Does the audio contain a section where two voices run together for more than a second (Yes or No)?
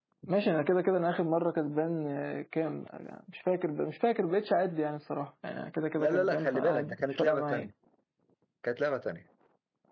Yes